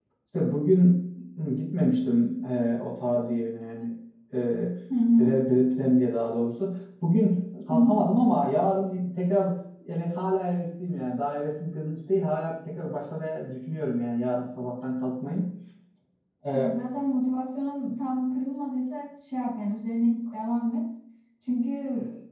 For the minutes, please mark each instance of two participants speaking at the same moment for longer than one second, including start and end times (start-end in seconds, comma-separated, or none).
none